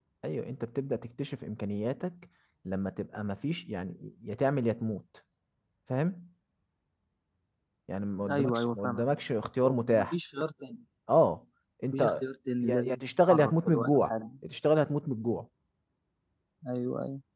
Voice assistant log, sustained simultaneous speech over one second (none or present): present